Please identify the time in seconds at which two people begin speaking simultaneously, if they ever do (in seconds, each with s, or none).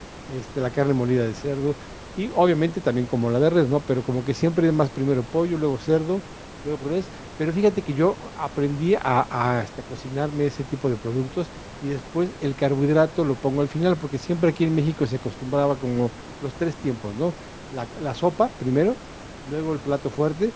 none